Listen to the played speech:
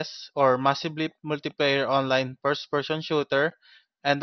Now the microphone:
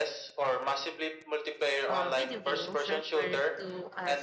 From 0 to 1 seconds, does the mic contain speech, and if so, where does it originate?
echo only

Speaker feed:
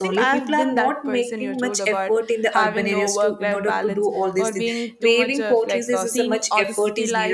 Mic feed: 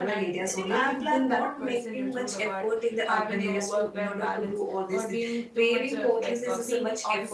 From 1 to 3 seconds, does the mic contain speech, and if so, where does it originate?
echo only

